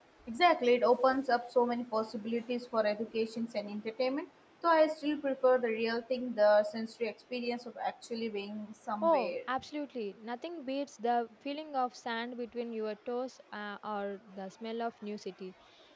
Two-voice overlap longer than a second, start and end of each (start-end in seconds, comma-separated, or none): none